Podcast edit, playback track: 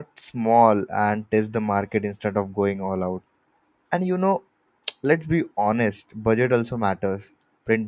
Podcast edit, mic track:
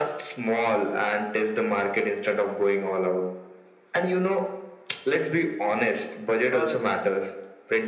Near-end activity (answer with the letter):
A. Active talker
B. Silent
A